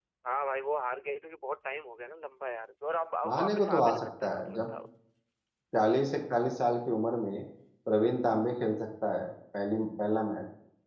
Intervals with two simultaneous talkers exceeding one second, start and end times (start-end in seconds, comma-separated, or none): 3.3-4.6